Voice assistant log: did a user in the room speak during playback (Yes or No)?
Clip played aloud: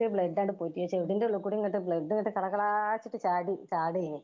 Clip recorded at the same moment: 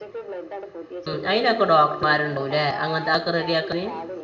Yes